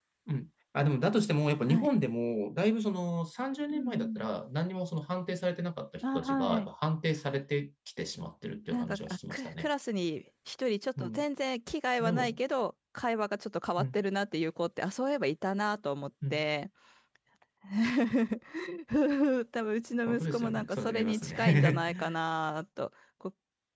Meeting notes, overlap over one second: present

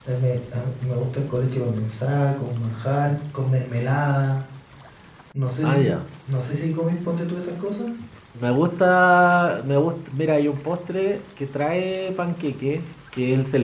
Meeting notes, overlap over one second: none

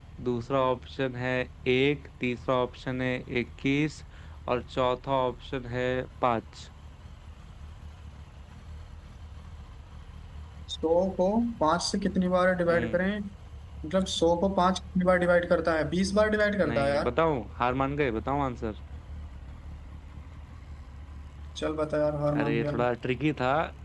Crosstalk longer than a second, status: none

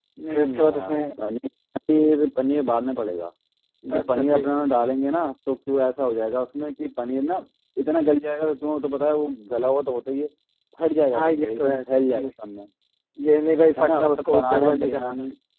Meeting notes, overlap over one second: present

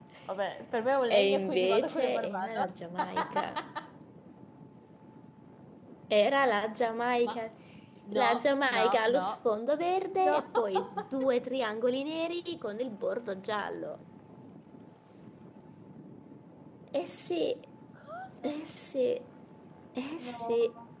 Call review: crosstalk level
present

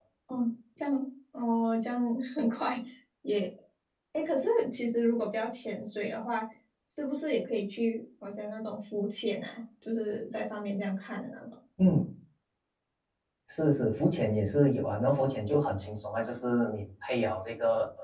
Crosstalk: none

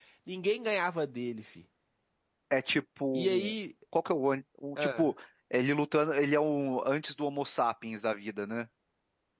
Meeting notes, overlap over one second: none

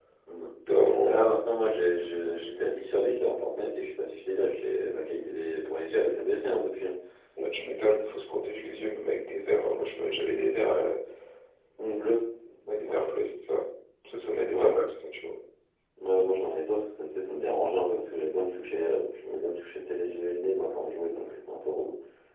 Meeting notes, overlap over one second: none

